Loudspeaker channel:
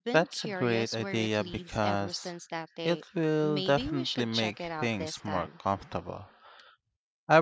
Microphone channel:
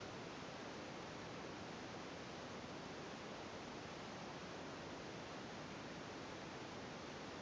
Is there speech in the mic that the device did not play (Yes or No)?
No